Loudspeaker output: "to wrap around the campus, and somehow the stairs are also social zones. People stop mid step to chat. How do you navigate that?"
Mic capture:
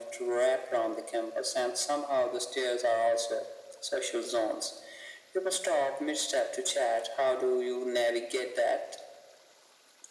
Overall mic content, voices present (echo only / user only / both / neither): echo only